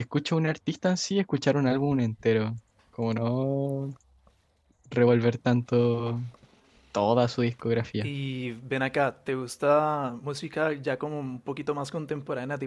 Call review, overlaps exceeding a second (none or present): none